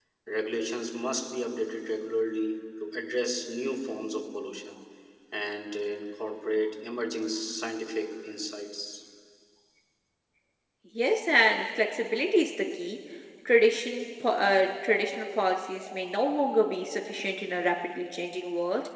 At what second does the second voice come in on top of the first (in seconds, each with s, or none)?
none